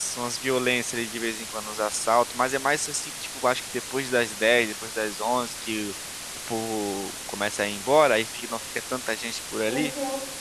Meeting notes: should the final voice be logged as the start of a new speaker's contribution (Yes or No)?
Yes